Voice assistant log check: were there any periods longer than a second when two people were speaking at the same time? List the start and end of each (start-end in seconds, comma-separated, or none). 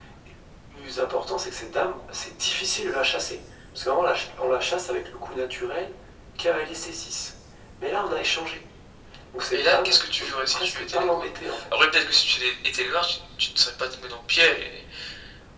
9.5-11.2